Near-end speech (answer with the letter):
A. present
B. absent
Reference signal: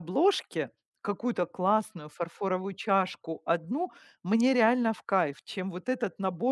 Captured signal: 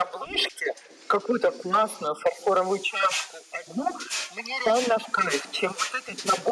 B